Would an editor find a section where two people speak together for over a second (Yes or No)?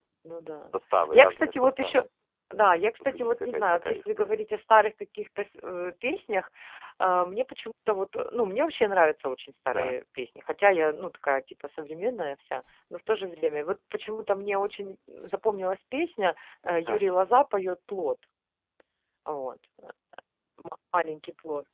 Yes